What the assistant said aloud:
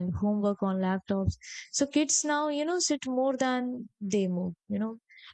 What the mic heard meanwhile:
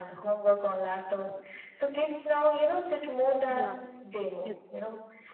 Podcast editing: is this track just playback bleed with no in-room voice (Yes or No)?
No